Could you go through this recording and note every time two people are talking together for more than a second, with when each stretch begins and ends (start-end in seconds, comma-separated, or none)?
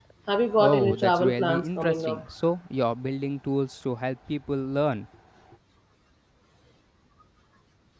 0.6-2.2